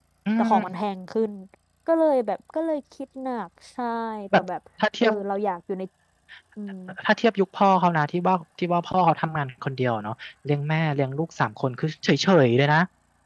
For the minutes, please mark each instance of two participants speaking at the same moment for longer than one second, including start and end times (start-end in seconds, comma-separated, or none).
none